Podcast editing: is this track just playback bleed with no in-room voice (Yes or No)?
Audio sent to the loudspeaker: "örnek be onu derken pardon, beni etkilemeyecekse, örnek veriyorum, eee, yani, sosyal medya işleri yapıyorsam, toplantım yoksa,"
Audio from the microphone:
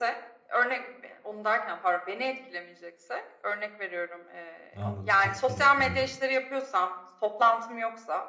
No